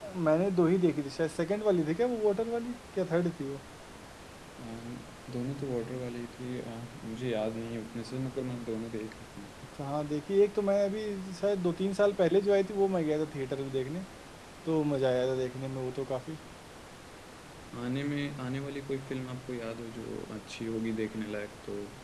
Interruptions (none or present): none